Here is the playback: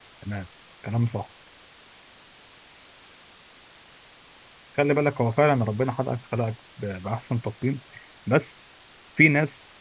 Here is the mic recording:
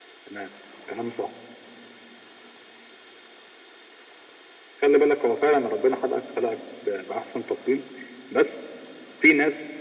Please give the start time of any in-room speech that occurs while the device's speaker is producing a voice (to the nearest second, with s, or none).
none